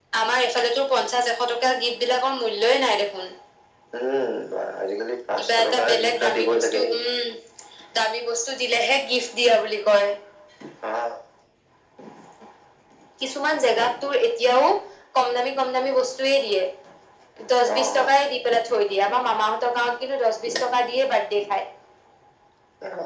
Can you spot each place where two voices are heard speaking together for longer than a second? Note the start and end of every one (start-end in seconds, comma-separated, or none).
5.4-6.8